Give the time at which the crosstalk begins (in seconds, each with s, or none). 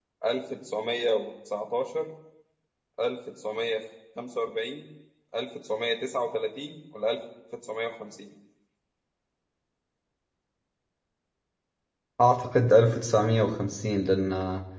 none